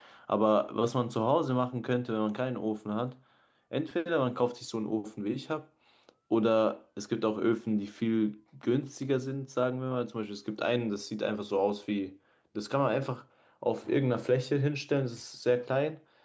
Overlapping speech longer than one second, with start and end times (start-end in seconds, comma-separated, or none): none